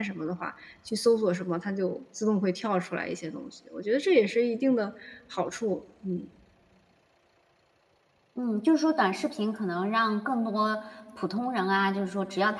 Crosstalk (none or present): none